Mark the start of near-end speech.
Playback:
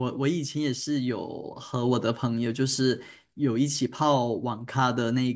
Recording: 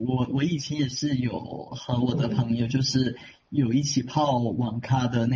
2 s

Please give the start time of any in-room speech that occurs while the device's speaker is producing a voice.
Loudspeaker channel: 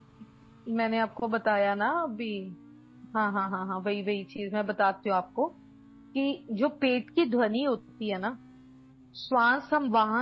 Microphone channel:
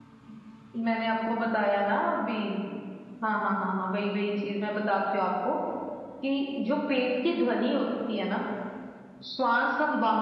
none

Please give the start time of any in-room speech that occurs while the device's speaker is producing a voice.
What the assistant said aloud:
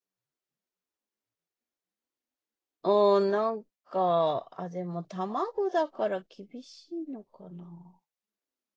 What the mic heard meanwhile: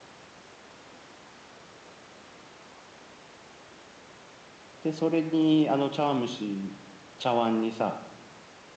5 s

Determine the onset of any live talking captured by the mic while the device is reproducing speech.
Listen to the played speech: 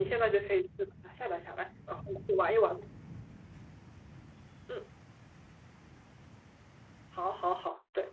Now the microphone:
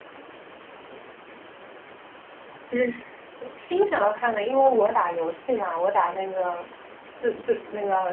3 s

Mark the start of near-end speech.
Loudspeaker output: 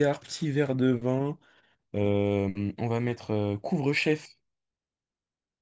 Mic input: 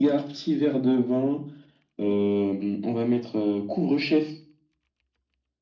none

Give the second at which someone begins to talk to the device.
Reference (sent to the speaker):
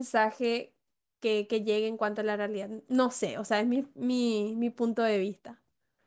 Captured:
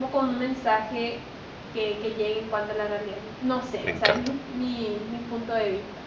4 s

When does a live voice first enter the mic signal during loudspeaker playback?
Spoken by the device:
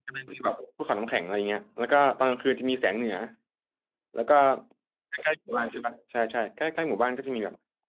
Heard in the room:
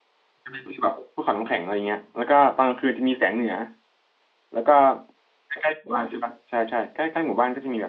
none

